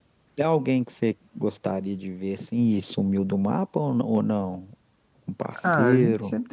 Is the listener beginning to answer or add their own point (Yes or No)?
Yes